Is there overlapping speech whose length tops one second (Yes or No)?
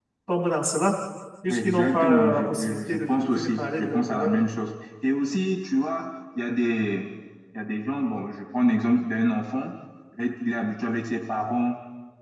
Yes